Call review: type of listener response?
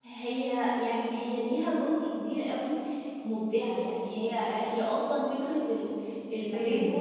listening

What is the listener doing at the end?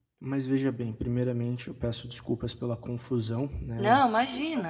listening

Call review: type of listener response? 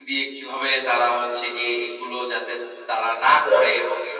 listening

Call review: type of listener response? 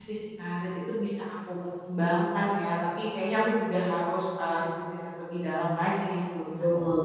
taking over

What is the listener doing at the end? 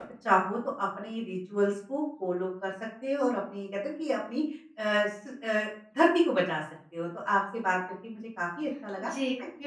taking over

